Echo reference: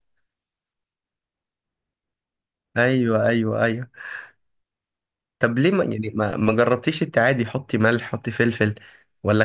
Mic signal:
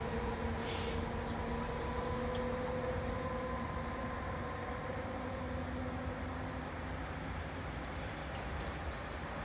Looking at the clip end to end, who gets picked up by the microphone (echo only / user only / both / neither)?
neither